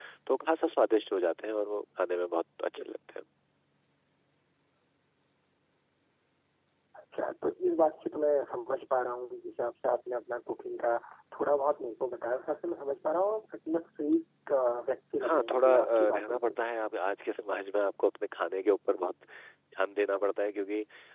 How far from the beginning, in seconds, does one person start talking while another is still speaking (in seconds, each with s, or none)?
15.2 s